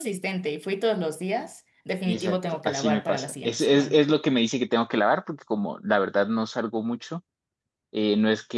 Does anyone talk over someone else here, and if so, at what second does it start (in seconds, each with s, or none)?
2.0 s